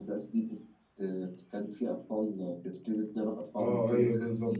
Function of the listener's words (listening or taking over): taking over